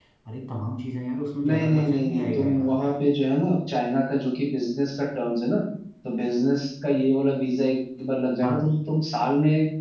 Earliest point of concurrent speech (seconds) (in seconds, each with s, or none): 1.5 s